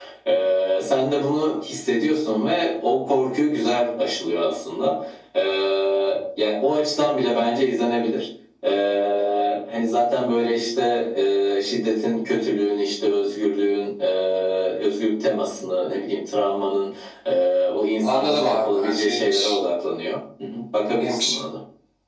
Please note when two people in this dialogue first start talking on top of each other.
18.0 s

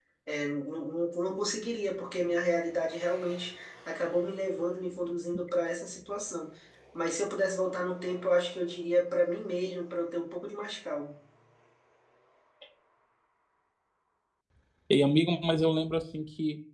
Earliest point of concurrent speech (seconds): none

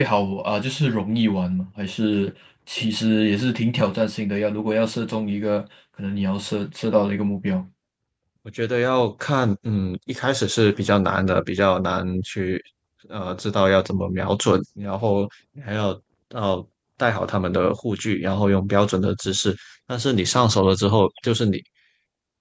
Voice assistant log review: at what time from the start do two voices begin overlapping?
none

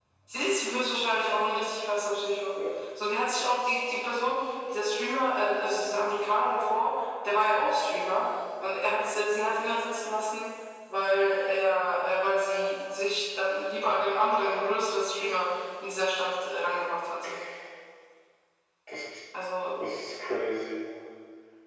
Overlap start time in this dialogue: none

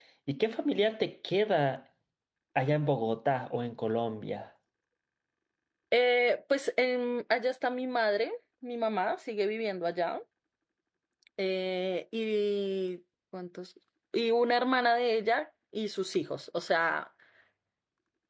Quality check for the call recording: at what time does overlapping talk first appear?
none

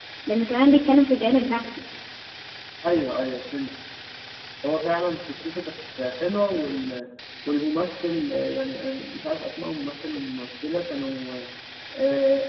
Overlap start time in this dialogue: none

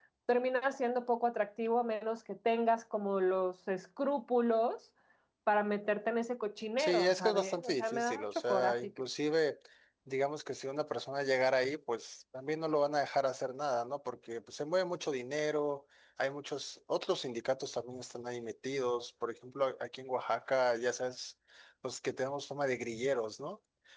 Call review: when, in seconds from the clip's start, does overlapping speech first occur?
6.8 s

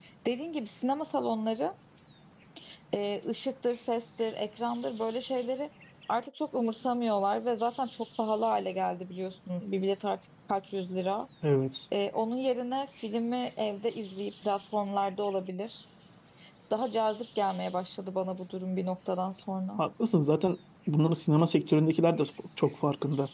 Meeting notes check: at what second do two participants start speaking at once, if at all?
none

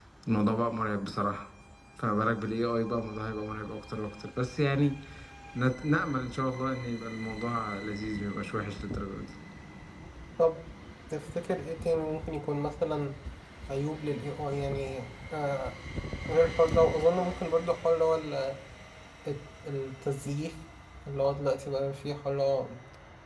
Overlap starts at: none

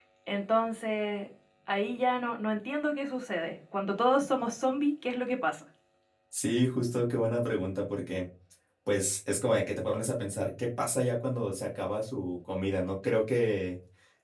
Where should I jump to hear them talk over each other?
none

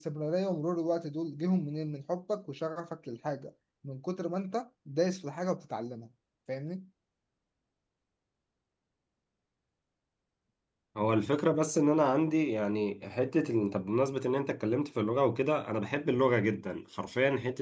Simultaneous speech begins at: none

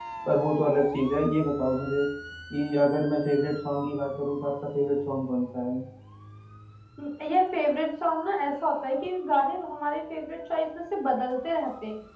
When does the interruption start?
none

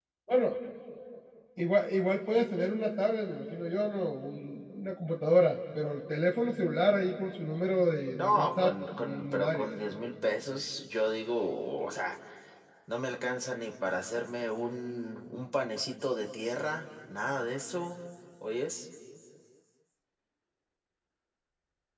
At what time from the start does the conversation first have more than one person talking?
8.2 s

